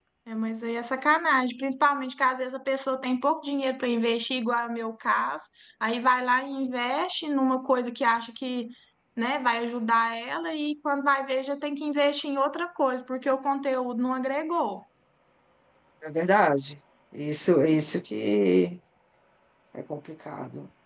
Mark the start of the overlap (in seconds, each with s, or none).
none